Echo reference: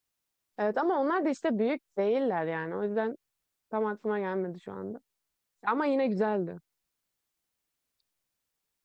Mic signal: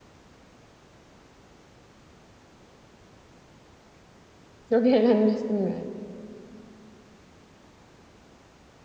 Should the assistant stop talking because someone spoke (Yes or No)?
Yes